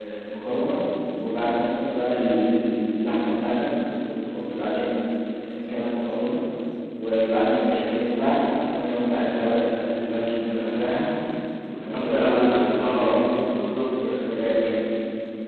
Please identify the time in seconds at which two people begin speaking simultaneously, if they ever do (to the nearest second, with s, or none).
12 s